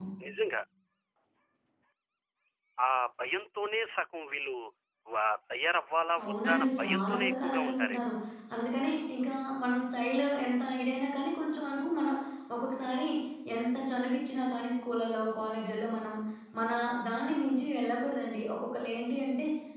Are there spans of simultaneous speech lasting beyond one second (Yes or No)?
Yes